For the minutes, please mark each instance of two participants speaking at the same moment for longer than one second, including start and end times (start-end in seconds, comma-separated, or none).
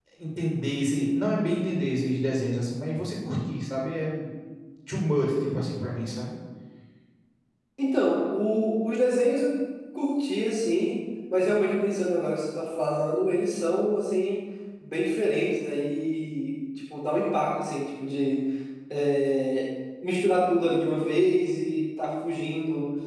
none